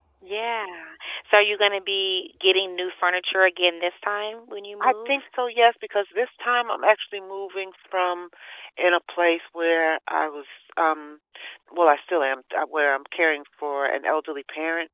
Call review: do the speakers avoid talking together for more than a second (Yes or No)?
Yes